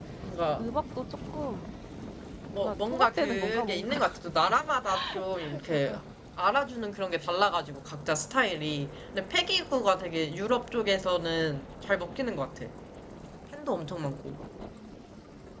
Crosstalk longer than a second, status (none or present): present